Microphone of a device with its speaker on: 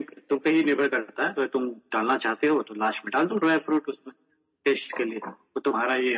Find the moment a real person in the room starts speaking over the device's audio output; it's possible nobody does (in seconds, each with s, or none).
none